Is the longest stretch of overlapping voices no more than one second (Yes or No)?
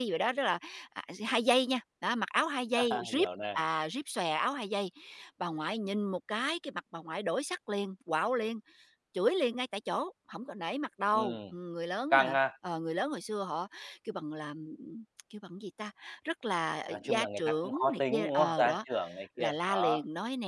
No